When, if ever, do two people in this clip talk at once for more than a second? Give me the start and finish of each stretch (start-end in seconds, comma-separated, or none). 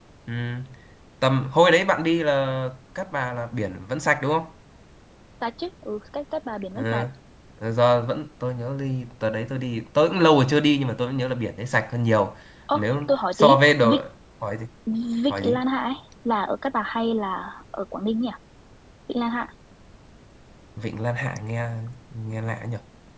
12.7-14.0